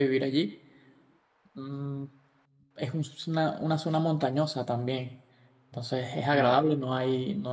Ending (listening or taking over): listening